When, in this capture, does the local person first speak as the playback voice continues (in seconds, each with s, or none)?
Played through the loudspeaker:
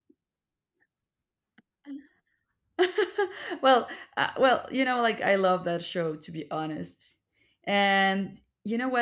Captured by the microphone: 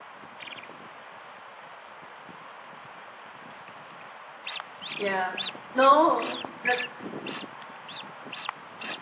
5.0 s